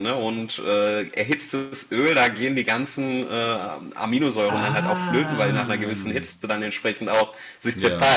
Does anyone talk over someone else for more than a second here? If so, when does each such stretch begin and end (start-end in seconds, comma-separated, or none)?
4.5-6.0